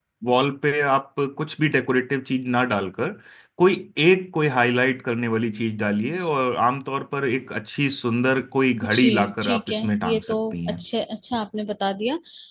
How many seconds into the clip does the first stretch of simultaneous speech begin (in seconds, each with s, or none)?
8.8 s